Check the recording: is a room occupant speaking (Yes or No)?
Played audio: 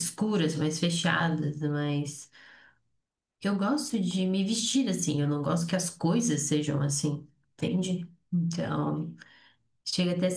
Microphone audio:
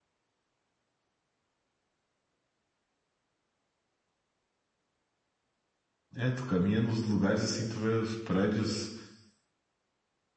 Yes